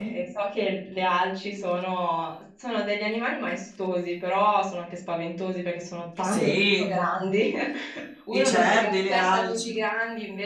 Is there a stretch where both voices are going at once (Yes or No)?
Yes